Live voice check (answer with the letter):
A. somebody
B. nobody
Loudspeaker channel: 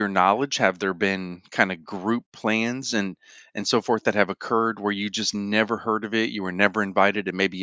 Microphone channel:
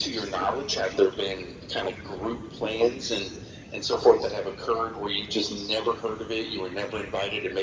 B